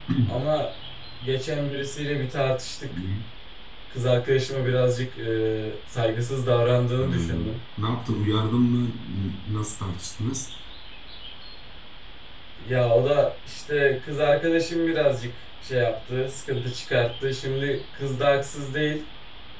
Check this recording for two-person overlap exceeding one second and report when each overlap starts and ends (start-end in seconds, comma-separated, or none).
none